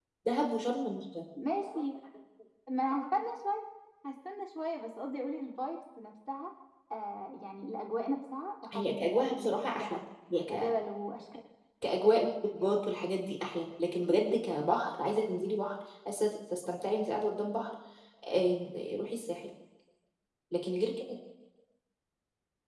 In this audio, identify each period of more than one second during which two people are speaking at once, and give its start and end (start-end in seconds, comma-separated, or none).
8.7-10.0